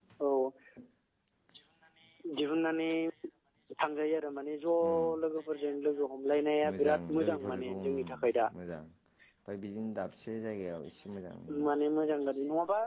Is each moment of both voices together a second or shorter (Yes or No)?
No